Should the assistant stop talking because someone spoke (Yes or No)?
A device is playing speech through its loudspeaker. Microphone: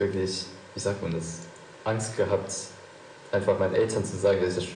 No